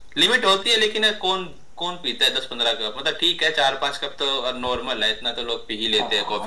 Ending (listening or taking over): taking over